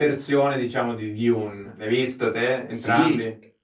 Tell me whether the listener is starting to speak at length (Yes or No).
Yes